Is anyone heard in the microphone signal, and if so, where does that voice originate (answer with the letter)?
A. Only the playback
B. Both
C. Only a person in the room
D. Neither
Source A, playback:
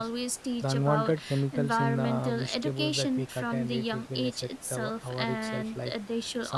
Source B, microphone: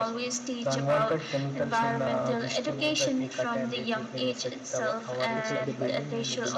B